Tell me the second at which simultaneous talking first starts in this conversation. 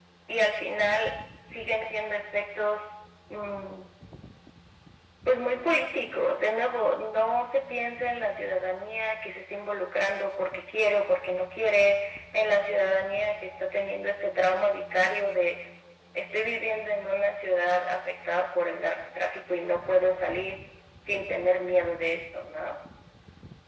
none

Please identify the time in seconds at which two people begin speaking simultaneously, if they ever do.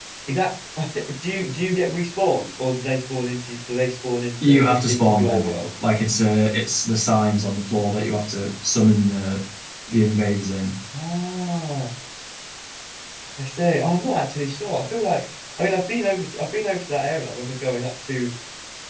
4.4 s

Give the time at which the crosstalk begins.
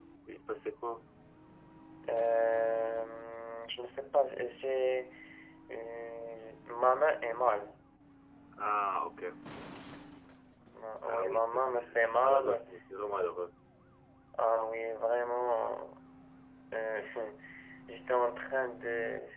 11.0 s

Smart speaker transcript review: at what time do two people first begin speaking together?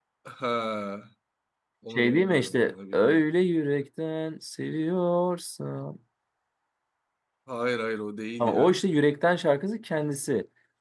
1.9 s

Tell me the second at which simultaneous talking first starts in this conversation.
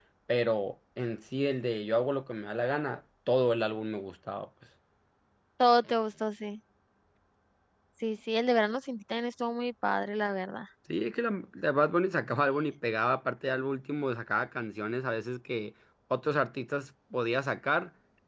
none

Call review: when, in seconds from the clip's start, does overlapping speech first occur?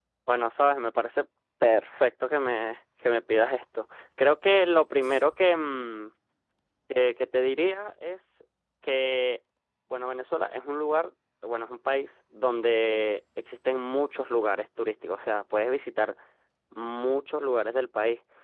none

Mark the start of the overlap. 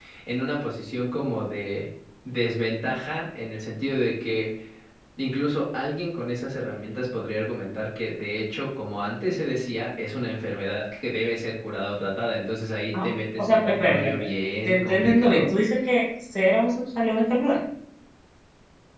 12.9 s

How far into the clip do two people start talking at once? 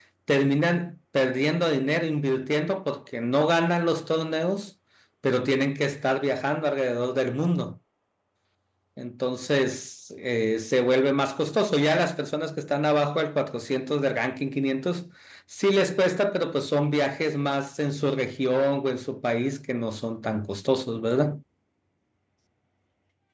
none

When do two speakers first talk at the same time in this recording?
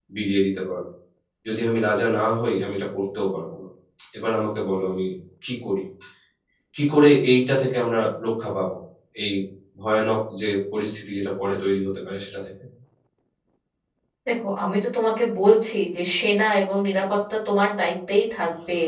none

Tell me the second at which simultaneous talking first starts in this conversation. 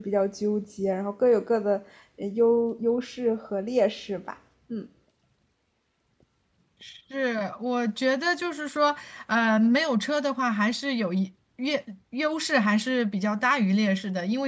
none

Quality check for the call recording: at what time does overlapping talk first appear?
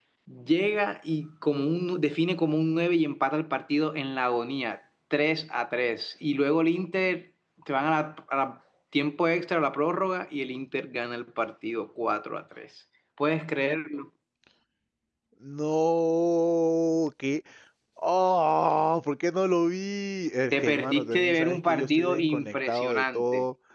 20.5 s

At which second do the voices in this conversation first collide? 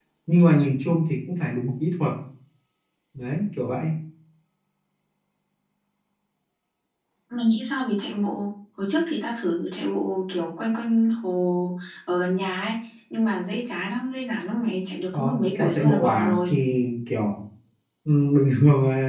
15.1 s

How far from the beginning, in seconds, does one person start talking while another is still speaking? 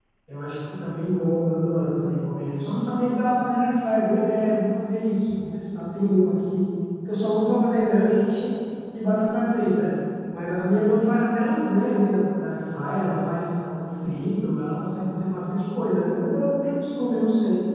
none

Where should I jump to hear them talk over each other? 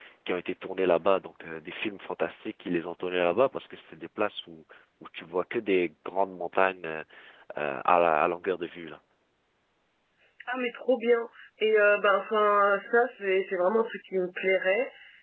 none

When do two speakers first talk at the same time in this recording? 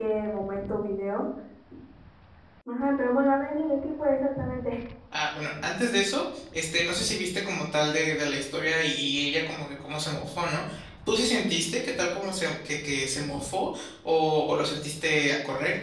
none

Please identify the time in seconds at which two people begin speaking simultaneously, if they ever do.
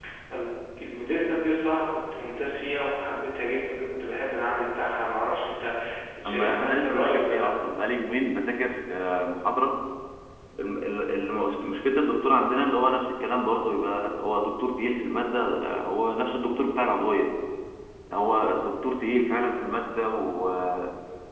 6.3 s

